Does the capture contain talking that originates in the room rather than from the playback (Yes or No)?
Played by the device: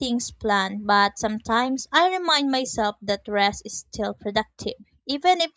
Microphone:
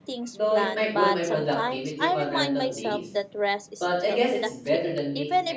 Yes